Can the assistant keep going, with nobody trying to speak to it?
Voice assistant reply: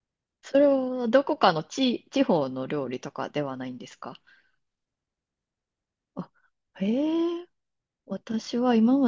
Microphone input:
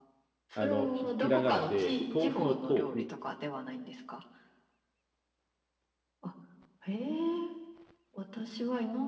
No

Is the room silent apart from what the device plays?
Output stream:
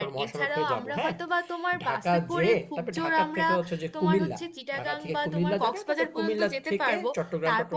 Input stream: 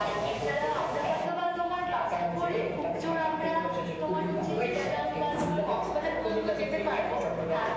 No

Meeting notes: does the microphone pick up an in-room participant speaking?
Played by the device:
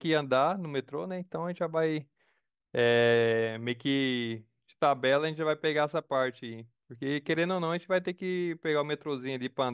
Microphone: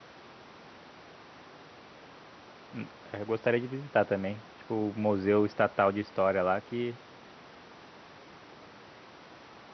Yes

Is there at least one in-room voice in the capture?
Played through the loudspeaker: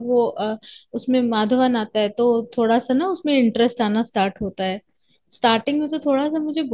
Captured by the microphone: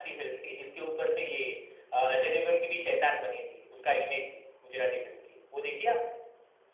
Yes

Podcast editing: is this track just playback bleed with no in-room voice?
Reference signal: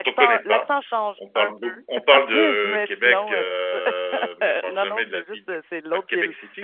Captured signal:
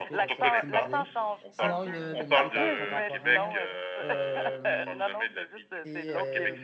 No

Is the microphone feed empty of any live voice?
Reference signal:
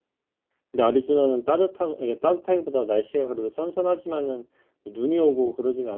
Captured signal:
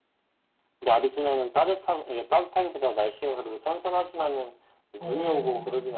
No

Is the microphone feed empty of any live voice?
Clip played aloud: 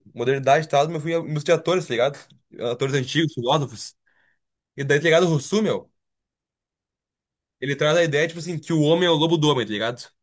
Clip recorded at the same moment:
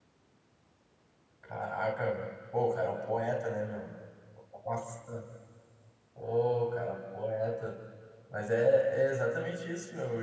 No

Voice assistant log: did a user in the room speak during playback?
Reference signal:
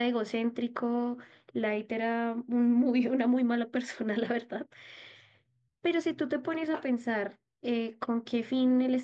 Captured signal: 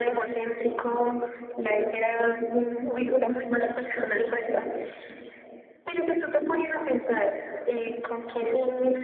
No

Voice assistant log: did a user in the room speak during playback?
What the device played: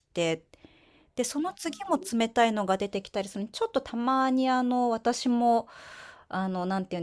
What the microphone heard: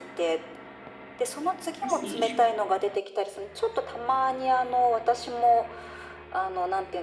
Yes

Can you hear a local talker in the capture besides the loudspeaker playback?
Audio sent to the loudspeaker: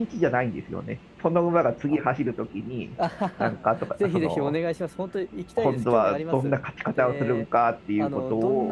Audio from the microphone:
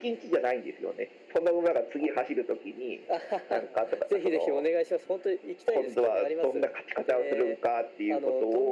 No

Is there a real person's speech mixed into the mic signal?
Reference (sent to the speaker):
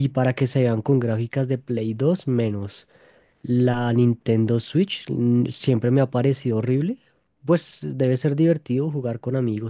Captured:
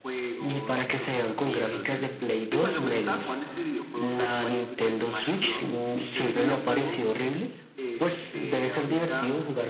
Yes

